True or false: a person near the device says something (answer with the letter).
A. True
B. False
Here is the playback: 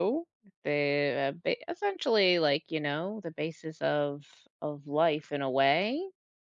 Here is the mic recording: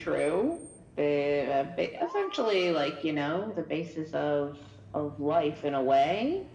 B